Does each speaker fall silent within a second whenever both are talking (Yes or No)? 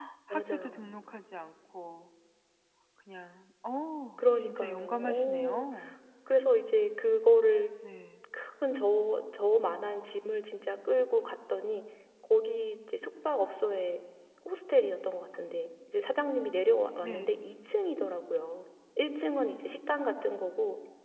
No